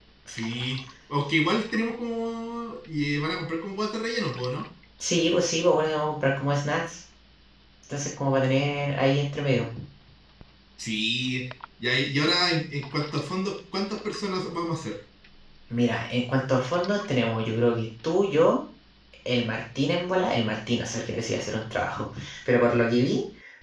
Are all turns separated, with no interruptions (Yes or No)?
Yes